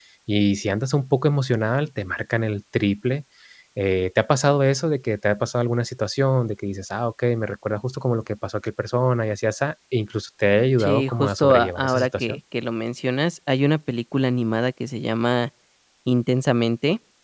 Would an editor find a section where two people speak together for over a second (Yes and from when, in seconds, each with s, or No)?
Yes, from 10.8 s